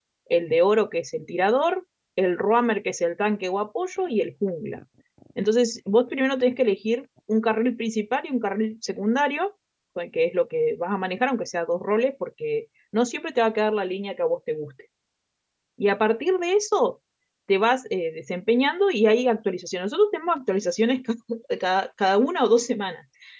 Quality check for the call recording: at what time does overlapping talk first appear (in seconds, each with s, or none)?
none